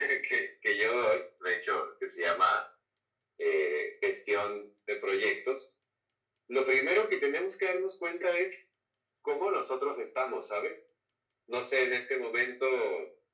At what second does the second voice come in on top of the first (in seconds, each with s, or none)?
none